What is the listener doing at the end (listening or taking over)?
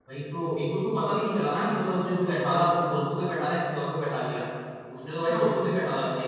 listening